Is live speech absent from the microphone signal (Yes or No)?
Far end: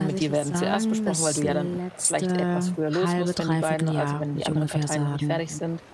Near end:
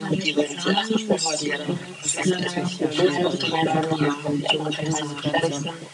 No